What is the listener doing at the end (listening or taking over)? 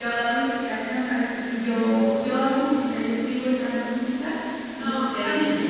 listening